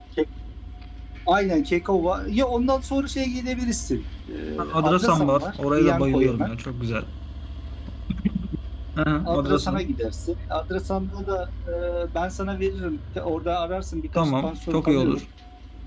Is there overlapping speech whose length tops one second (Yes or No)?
Yes